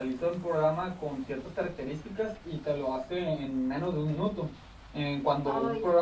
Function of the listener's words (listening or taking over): listening